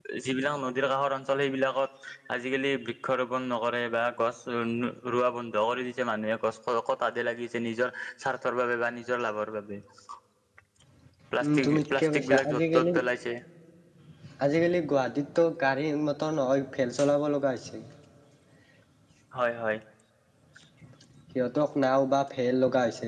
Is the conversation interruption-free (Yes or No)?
No